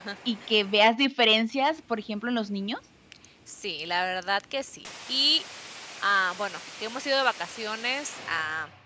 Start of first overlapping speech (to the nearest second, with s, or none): none